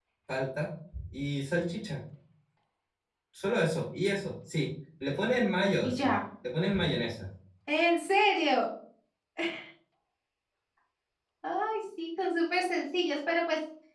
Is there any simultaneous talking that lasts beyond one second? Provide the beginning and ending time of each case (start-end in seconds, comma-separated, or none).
none